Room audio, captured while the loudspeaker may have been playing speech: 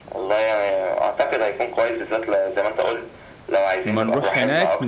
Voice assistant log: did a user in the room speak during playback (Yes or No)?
Yes